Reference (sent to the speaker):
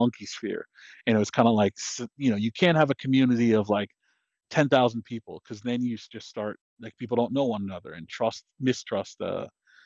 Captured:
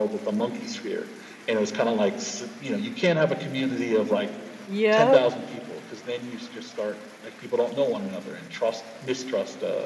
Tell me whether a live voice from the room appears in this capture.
Yes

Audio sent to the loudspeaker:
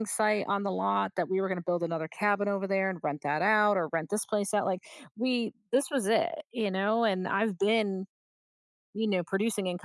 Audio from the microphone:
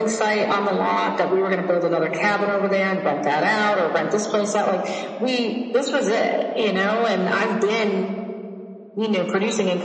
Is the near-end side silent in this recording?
Yes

